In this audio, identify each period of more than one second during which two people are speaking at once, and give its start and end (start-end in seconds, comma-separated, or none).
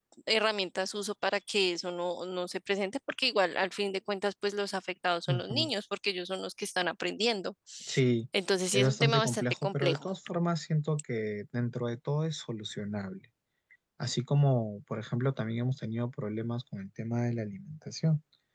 8.7-10.1